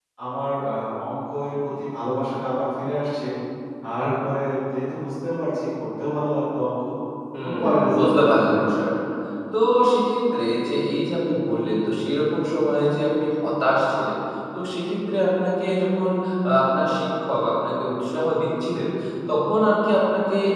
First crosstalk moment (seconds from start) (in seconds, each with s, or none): 7.4 s